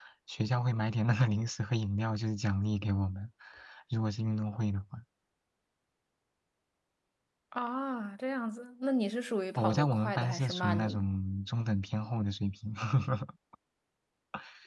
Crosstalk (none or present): present